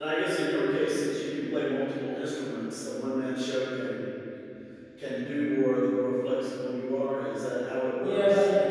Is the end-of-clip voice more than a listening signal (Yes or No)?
Yes